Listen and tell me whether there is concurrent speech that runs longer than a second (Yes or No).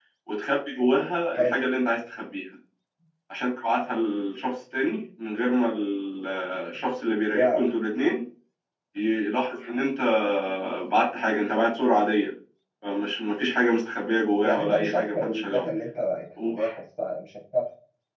Yes